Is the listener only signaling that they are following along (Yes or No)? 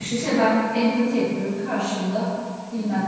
Yes